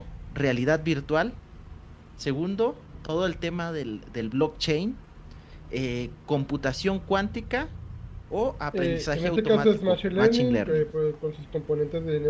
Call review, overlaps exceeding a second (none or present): present